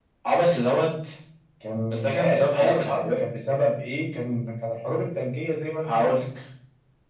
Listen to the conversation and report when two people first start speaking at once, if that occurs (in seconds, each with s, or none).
1.9 s